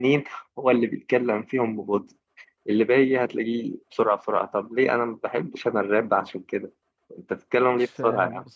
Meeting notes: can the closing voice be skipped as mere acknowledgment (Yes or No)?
No